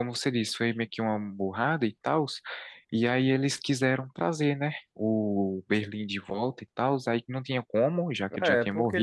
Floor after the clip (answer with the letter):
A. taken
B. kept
A